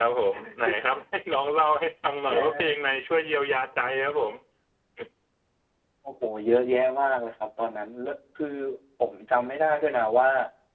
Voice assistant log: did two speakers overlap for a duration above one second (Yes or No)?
No